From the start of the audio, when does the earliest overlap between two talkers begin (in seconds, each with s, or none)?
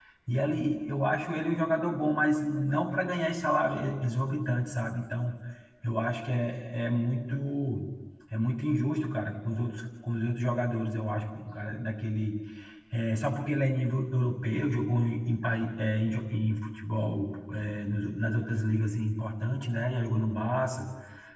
none